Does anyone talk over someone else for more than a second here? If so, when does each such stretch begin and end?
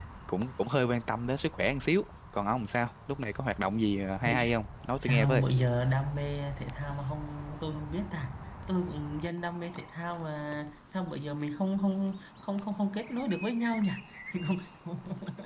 none

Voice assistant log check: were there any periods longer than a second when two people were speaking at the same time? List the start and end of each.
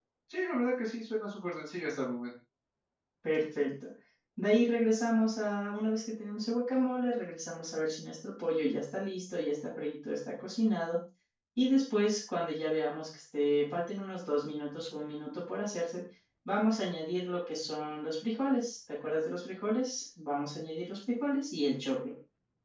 none

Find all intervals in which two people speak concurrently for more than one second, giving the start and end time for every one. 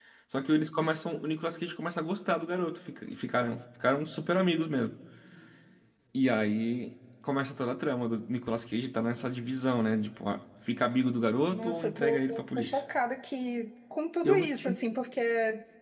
11.5-12.8

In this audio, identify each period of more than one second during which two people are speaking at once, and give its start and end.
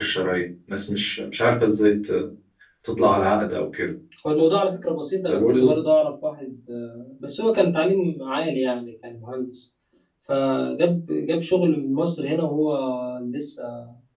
none

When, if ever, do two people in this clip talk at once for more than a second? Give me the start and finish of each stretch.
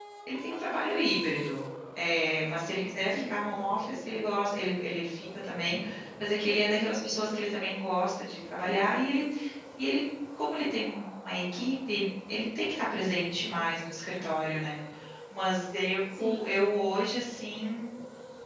none

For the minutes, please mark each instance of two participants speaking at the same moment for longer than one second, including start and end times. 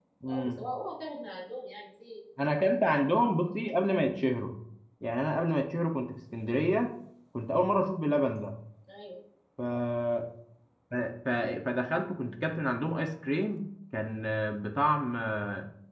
none

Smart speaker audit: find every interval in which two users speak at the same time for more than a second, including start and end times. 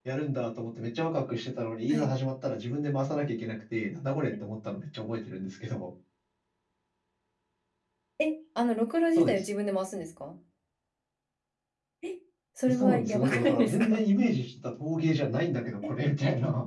12.7-14.0

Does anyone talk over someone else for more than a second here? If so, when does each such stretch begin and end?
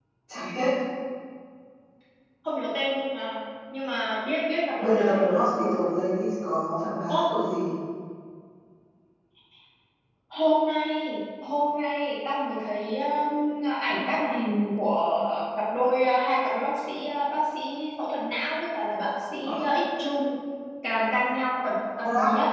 none

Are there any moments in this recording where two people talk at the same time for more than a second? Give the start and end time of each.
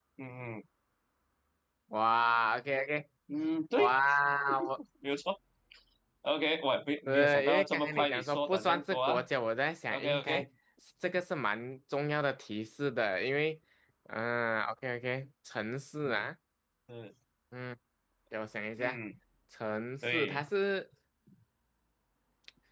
7.1-9.2

